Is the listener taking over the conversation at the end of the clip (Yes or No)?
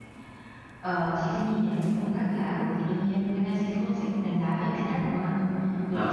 No